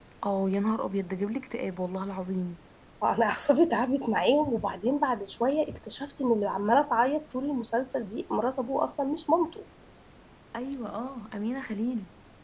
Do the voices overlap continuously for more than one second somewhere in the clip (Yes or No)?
No